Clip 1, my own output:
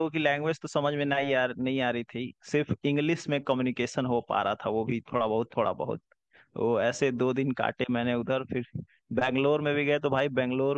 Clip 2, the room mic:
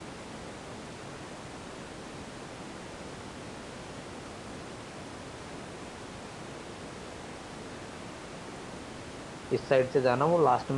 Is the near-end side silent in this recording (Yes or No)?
No